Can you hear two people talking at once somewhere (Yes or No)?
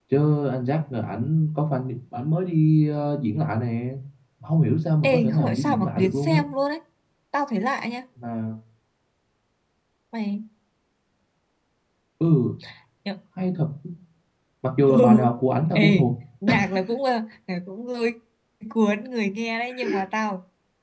Yes